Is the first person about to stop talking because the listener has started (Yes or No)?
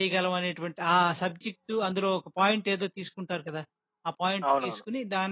No